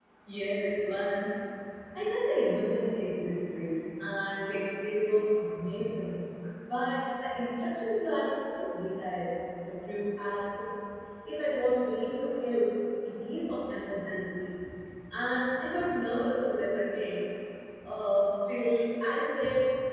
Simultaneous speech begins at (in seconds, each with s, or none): none